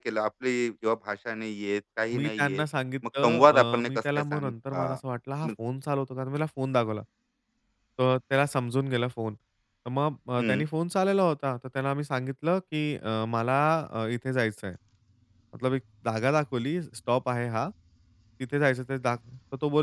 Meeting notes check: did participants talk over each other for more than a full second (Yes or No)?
Yes